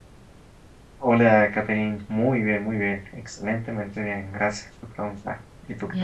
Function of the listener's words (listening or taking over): taking over